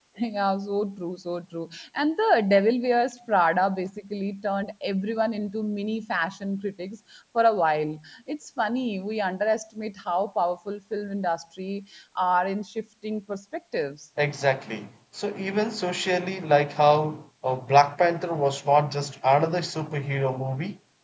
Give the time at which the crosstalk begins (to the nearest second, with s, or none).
none